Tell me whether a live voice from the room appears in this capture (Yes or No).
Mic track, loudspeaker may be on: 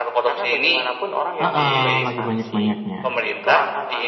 Yes